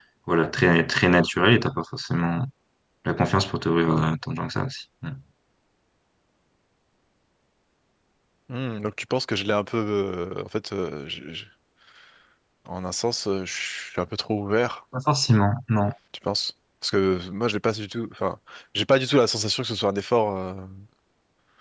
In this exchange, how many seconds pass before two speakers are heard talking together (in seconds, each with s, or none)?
none